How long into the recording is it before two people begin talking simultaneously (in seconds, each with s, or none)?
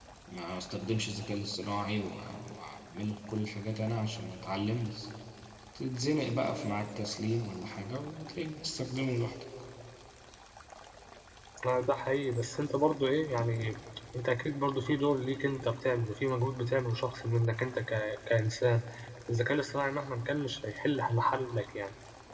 none